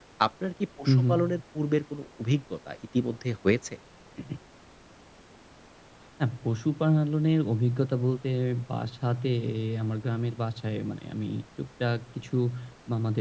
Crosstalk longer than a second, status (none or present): none